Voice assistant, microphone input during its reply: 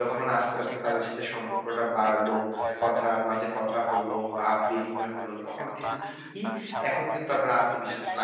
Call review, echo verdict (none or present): present